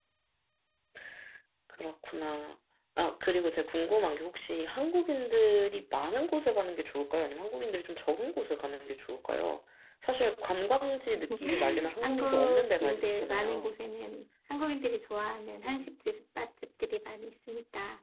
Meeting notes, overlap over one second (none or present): present